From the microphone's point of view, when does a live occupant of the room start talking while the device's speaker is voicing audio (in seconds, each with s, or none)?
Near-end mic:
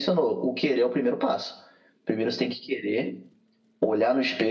none